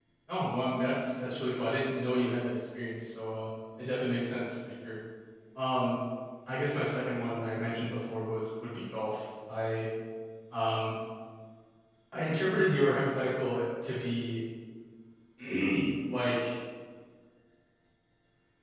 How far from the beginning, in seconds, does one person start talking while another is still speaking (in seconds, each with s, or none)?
none